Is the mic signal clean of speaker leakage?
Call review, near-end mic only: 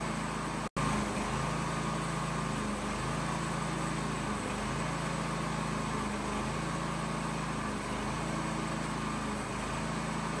Yes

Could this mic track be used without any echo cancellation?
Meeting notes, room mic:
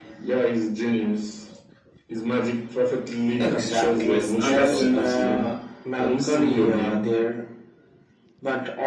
No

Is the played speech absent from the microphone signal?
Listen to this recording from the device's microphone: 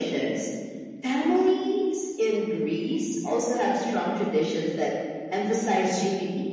No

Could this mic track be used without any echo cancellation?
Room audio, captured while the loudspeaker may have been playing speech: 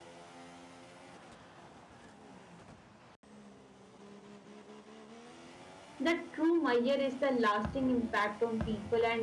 Yes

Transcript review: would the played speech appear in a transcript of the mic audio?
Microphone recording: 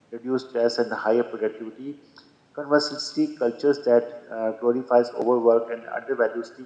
No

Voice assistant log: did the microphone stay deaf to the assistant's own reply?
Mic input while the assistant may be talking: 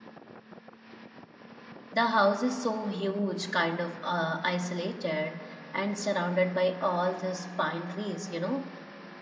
Yes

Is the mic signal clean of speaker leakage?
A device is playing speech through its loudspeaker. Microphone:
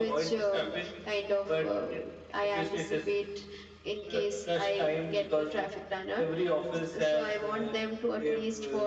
No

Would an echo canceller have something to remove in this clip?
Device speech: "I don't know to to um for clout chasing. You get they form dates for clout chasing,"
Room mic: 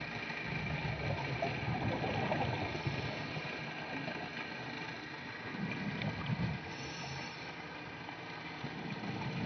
No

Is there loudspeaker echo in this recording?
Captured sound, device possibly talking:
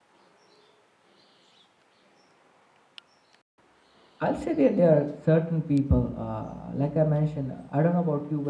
No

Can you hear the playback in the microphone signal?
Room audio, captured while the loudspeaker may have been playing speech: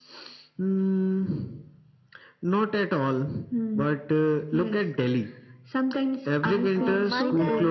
Yes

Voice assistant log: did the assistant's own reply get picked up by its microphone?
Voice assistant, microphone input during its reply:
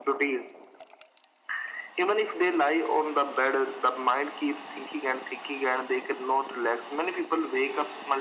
Yes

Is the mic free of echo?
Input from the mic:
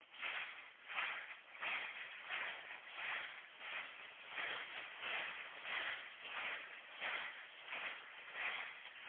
Yes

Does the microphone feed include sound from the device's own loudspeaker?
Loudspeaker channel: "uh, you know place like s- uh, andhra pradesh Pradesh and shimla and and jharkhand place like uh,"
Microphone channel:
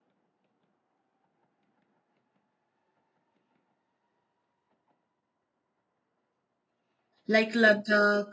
No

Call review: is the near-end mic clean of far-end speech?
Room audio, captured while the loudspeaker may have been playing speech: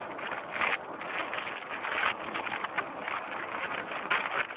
Yes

